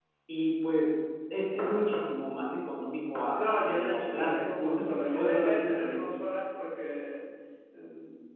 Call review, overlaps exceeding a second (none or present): present